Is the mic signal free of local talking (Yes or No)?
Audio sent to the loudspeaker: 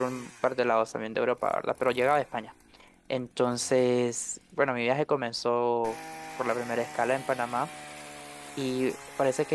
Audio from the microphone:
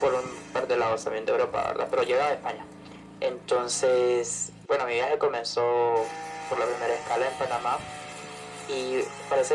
Yes